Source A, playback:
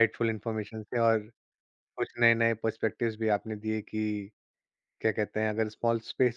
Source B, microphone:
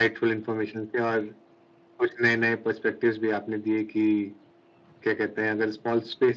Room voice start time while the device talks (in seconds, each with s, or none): none